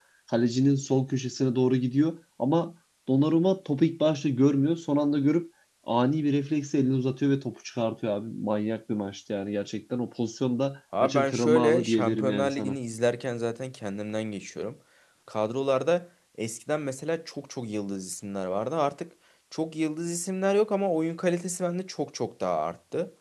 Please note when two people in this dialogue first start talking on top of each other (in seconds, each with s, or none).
10.9 s